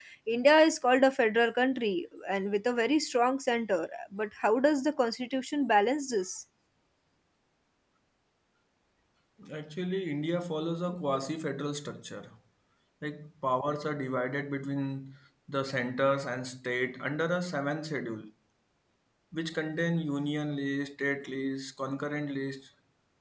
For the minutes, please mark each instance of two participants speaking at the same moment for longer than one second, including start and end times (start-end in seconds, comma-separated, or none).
none